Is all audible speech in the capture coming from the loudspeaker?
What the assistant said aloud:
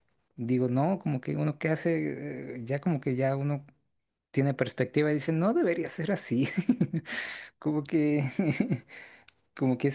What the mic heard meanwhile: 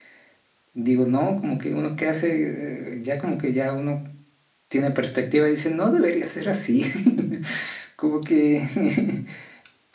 Yes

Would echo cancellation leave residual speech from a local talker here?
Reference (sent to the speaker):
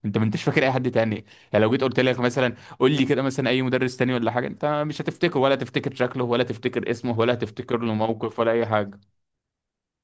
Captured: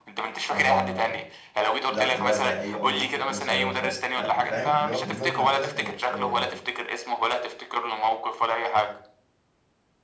Yes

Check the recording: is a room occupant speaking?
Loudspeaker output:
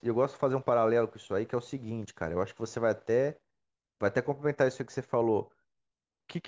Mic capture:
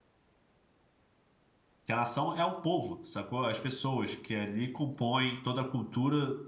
Yes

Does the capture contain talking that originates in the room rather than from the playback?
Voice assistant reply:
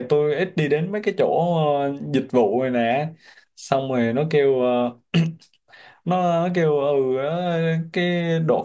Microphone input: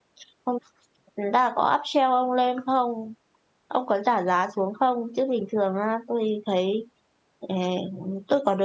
Yes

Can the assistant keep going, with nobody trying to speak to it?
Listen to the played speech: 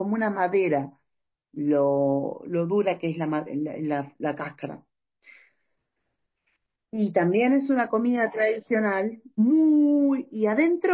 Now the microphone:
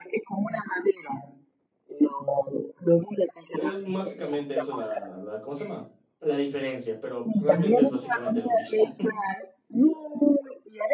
No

